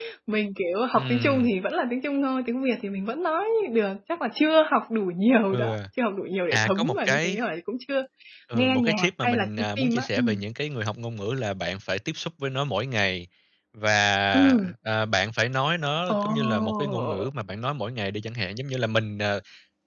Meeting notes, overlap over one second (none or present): present